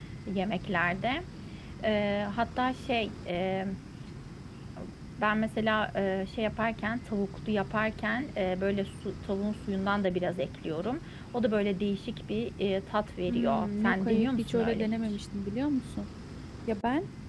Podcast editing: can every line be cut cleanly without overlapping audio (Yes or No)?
No